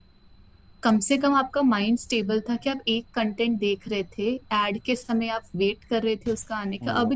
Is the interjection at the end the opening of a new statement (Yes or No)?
No